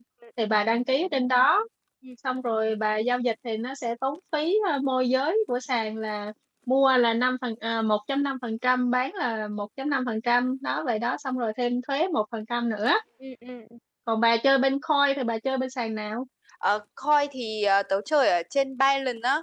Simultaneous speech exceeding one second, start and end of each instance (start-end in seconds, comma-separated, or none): none